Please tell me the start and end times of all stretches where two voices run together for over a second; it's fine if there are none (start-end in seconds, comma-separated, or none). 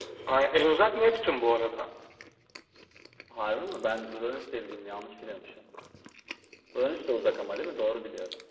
none